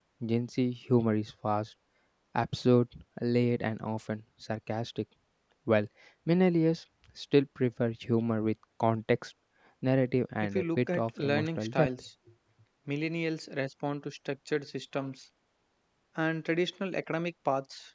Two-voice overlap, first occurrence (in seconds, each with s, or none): 10.5 s